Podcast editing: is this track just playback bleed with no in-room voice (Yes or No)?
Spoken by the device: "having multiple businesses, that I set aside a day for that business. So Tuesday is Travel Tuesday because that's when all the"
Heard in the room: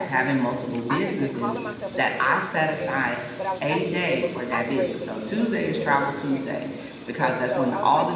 No